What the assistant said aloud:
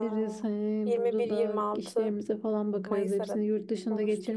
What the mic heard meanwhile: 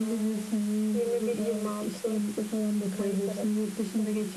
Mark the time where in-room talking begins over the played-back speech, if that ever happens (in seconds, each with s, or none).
none